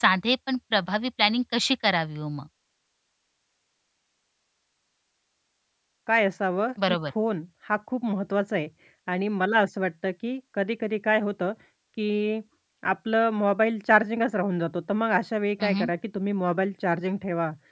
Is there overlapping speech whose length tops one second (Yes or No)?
No